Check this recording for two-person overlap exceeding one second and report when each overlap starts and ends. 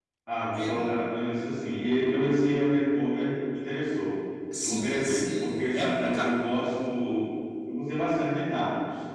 4.6-6.3

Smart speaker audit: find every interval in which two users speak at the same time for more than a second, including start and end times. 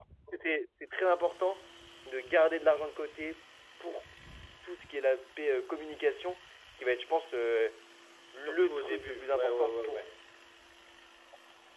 8.5-10.1

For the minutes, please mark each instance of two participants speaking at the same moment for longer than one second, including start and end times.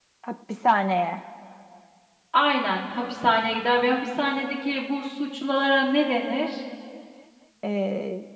none

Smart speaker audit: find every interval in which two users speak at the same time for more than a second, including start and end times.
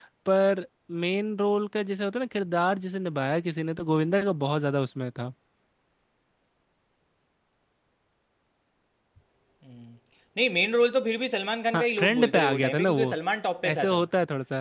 11.7-13.1

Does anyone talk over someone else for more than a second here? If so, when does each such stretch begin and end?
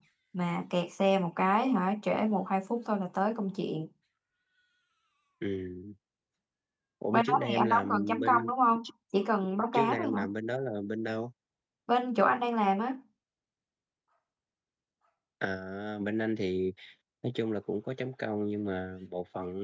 7.1-8.5

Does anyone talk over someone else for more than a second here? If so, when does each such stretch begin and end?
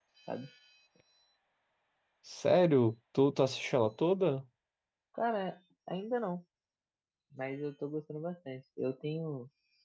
none

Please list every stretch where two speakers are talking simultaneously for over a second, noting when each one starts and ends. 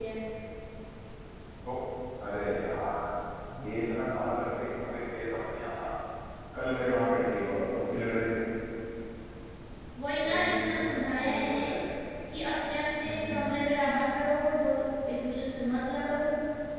10.2-11.8

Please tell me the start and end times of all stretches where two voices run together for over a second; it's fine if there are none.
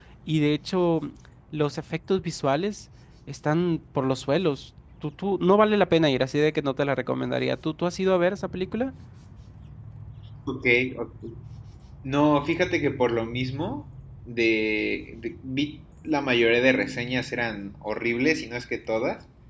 none

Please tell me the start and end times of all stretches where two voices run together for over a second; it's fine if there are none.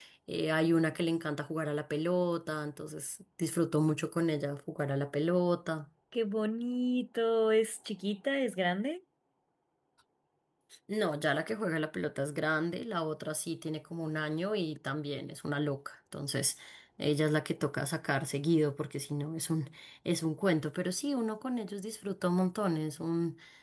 none

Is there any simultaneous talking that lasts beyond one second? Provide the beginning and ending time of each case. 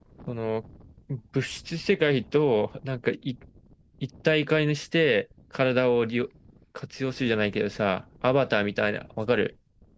none

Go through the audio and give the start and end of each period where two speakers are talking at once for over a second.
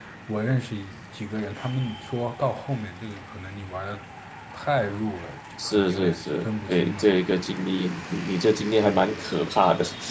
5.6-7.0

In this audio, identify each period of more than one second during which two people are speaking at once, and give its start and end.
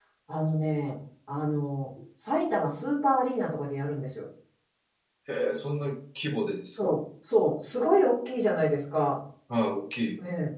none

